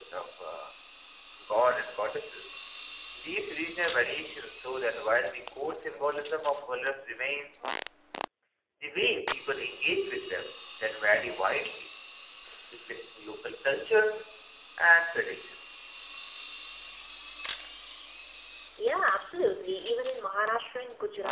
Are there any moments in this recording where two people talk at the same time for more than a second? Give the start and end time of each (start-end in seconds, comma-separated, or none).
none